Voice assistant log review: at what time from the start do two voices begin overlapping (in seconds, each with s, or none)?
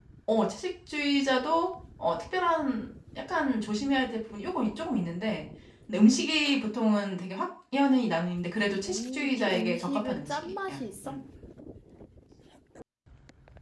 8.6 s